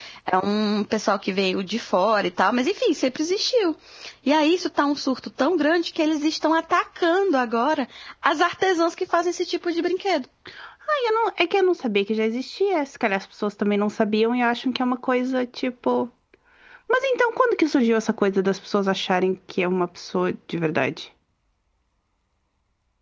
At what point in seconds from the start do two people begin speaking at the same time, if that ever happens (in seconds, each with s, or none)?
none